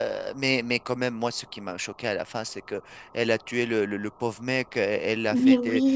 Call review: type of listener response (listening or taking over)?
listening